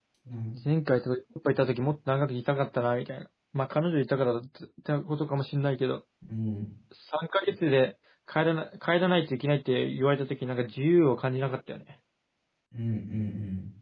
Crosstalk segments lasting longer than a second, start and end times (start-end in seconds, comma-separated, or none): none